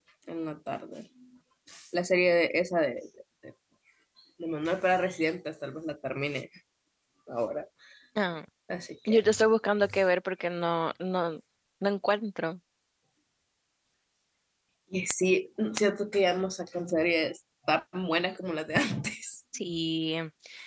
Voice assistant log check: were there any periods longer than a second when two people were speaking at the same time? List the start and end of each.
none

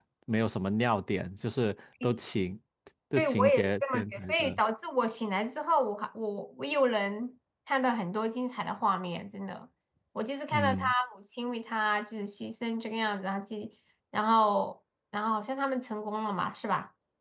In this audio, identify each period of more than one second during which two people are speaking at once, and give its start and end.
3.2-4.6

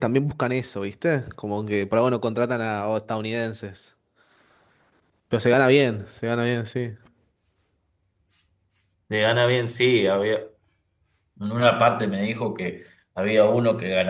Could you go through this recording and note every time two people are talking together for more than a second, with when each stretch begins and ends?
none

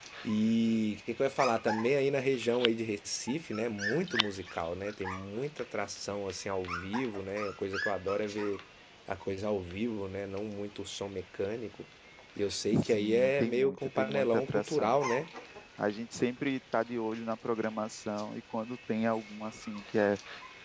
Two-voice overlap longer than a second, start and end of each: 12.8-14.9

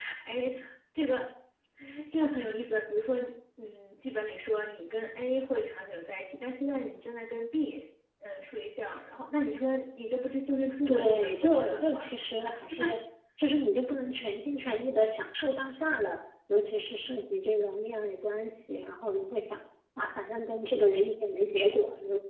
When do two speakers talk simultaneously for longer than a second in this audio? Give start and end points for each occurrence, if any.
10.9-12.1

